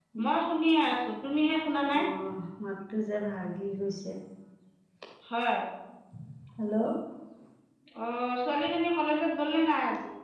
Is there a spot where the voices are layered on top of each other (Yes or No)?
No